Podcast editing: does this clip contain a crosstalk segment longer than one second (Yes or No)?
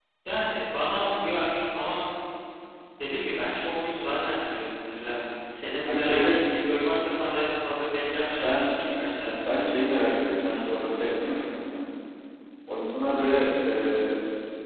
No